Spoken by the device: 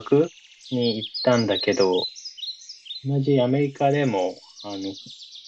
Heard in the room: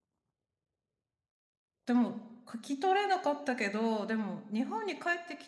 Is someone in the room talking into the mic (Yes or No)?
Yes